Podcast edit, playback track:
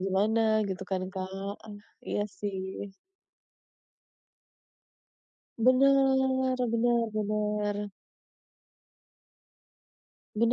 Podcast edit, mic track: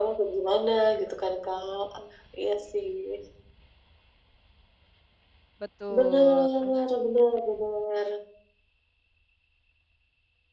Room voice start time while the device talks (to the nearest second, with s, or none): 6 s